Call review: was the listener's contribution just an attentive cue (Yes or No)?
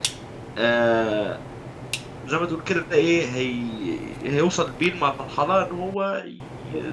No